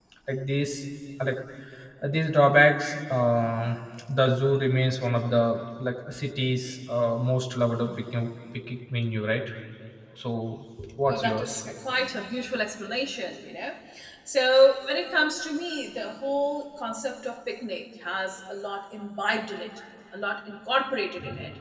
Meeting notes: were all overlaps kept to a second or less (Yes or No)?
Yes